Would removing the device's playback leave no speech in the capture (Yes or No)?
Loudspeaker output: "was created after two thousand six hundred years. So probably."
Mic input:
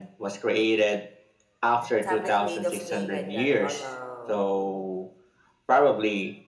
No